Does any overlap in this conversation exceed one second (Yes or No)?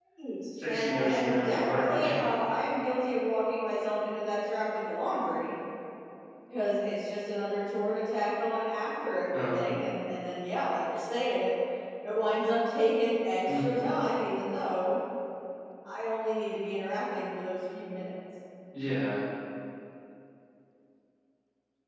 Yes